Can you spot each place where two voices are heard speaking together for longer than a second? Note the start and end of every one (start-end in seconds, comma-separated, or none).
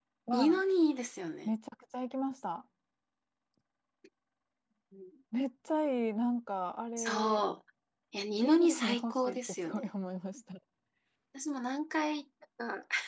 8.4-9.9